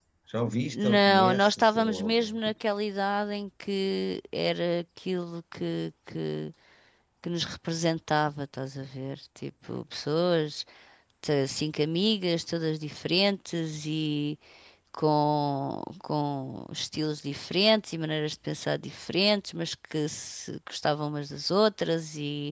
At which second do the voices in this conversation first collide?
0.7 s

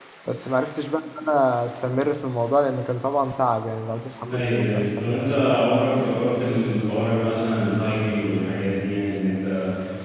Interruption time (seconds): 4.2 s

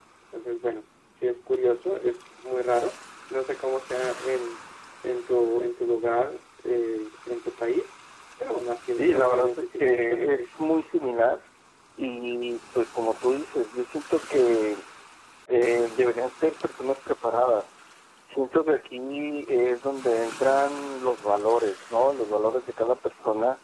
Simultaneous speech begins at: 9.0 s

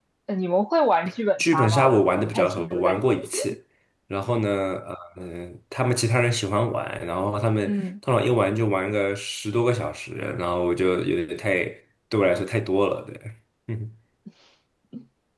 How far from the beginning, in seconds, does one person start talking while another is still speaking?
1.4 s

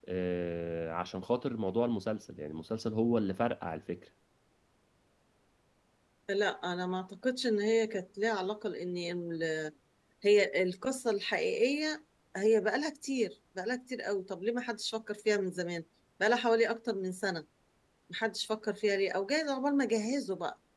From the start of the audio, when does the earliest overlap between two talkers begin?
none

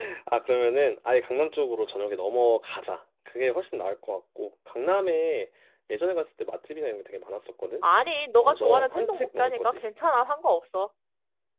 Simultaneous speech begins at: 8.4 s

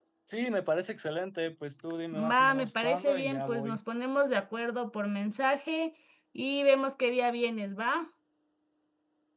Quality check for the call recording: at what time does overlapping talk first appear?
2.1 s

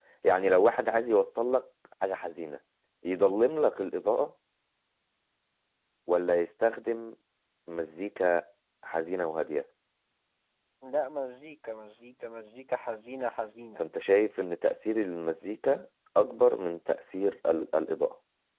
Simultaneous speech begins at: none

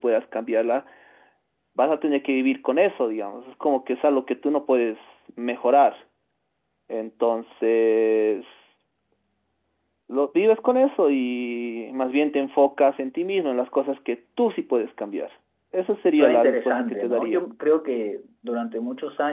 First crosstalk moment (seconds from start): 16.1 s

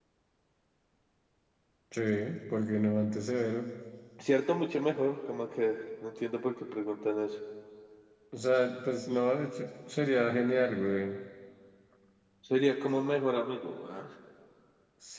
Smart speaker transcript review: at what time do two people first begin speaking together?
none

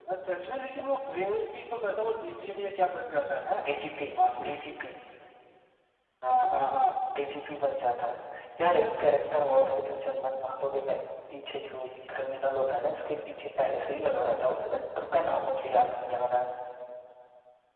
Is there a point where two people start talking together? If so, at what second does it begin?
none

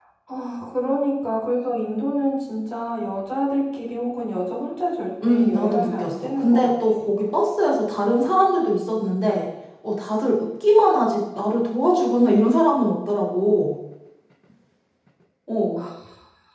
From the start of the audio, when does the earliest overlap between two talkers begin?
5.2 s

